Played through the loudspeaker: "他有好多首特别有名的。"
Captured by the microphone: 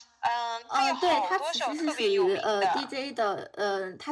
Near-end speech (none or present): present